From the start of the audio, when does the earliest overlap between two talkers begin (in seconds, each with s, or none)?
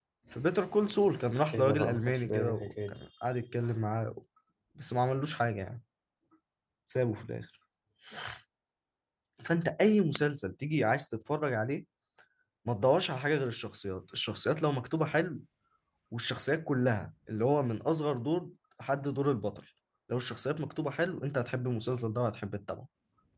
1.5 s